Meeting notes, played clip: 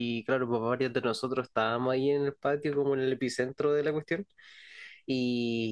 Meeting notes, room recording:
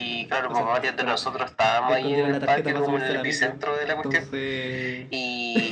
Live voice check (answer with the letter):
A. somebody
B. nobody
A